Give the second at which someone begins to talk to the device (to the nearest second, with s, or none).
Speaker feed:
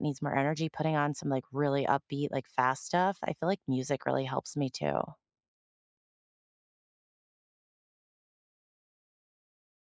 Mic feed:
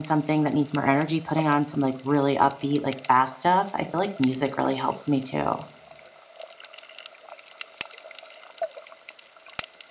none